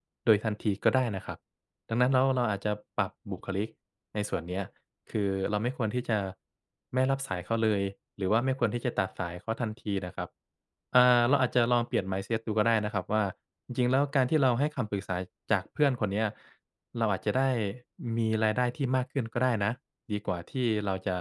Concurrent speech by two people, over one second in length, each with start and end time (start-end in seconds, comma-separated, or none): none